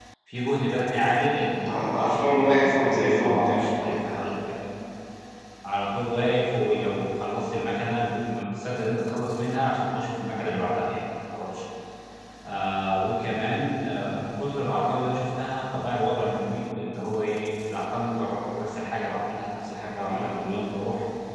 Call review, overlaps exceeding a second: present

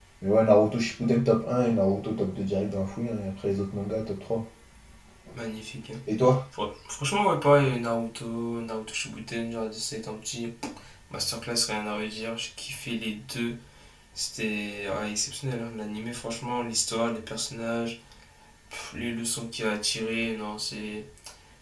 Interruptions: none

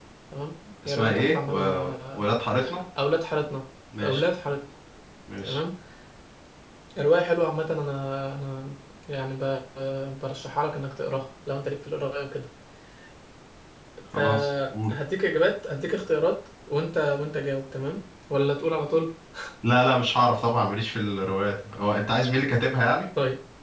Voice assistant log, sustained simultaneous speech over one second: present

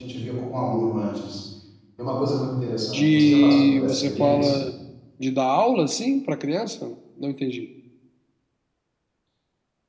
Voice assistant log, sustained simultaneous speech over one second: present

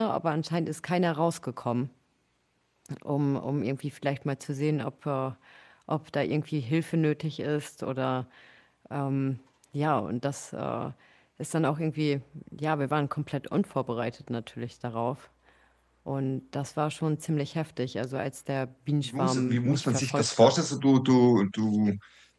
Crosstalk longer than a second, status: present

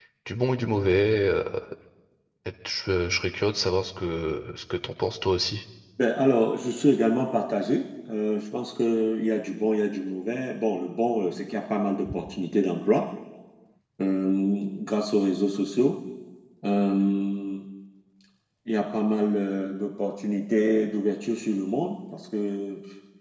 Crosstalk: none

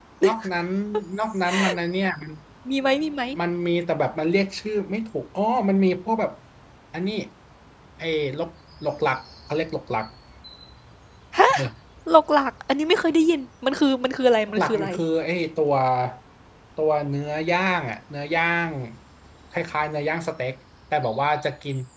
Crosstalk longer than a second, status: none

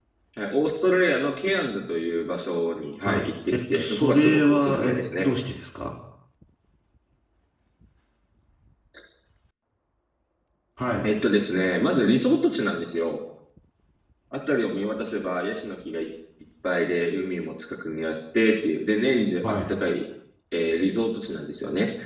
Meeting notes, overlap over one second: present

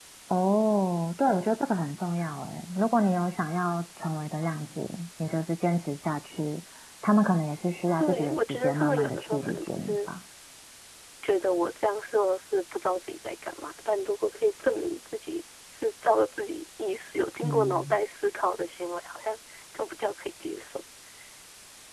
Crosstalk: present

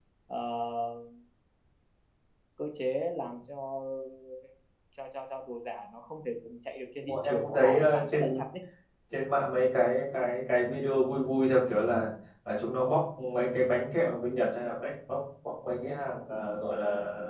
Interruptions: present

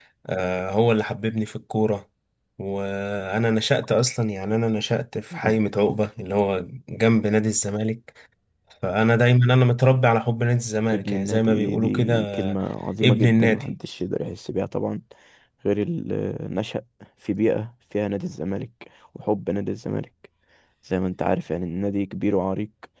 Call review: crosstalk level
present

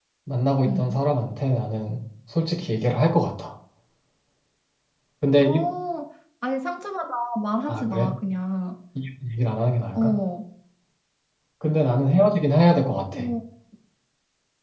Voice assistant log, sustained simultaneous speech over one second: none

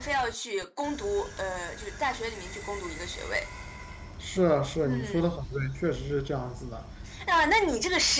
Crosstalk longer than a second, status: none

